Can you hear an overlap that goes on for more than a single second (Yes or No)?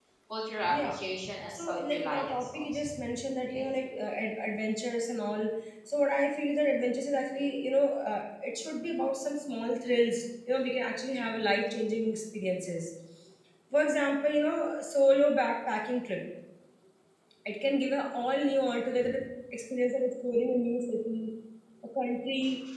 Yes